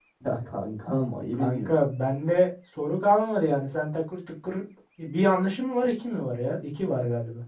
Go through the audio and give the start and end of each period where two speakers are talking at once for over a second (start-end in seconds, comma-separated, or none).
none